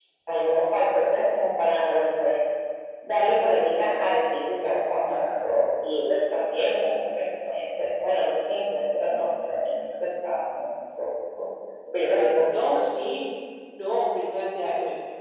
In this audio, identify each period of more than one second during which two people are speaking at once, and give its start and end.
none

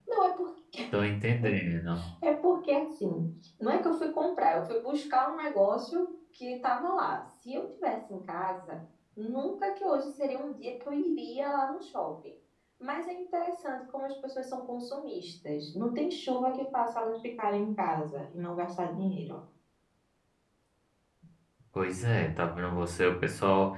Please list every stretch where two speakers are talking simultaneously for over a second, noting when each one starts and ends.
none

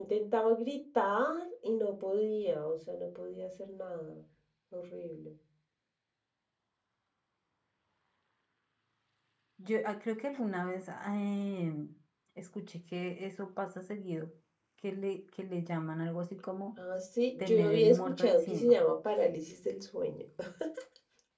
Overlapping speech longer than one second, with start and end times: 17.4-18.7

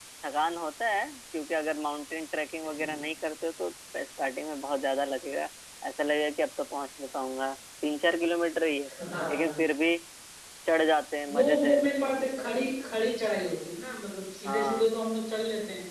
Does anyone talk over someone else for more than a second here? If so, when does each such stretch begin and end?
none

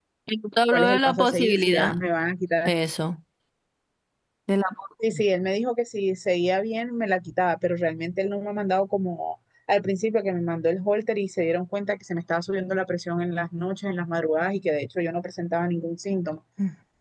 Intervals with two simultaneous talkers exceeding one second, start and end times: 0.7-2.0

